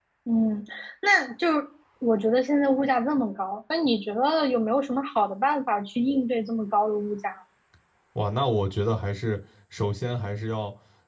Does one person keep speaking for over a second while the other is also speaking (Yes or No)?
No